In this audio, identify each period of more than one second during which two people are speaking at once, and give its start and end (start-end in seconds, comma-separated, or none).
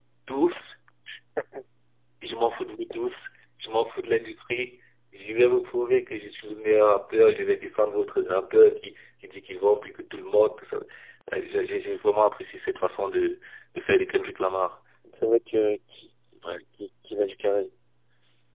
none